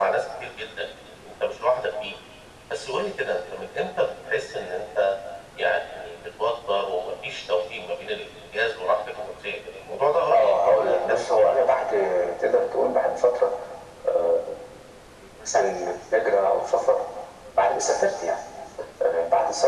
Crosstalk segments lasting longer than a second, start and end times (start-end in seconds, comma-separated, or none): 10.3-11.5